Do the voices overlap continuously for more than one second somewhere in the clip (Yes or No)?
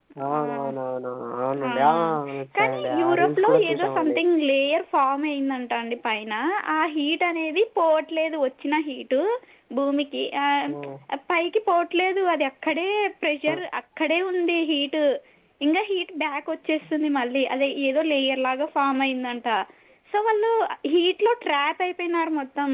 Yes